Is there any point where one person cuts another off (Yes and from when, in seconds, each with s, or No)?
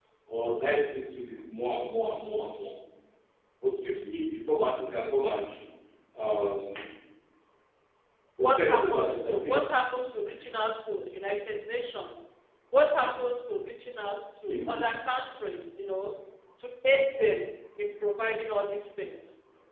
Yes, from 8.4 s